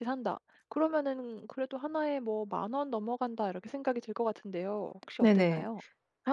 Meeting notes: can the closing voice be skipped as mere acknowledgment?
No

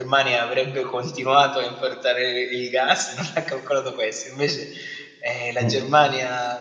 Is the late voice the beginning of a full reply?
No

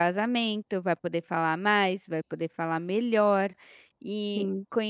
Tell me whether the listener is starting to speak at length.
No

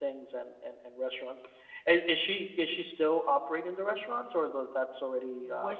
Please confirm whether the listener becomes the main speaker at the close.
Yes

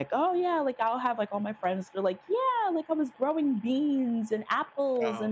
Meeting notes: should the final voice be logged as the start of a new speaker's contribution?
No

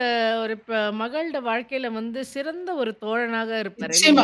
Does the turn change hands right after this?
Yes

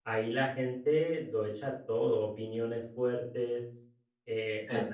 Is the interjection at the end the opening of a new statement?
No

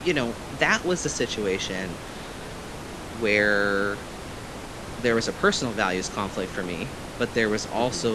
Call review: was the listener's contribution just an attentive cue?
Yes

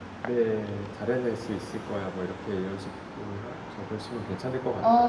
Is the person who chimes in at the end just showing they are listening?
No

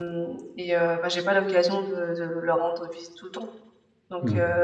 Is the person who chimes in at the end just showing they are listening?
Yes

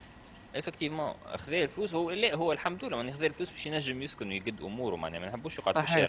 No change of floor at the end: No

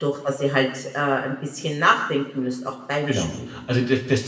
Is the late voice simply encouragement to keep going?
No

